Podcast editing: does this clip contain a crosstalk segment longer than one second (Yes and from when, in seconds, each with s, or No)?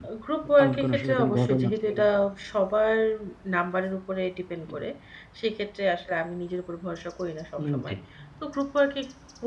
Yes, from 0.6 s